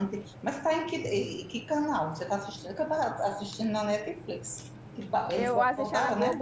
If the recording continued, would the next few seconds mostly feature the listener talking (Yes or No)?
Yes